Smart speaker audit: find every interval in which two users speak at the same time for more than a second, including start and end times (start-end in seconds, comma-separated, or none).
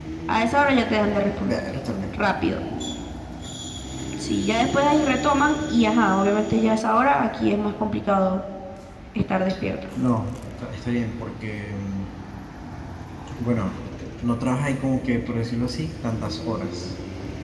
none